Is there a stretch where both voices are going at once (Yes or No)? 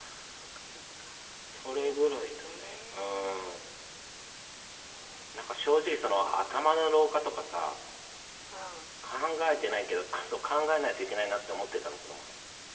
Yes